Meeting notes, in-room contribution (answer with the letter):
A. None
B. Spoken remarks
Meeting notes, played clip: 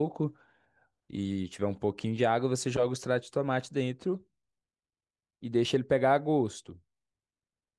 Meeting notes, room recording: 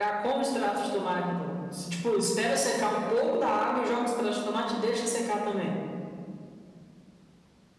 B